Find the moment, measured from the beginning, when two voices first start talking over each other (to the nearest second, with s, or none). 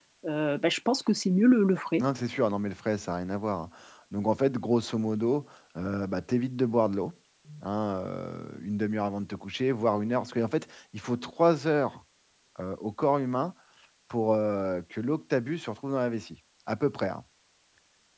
none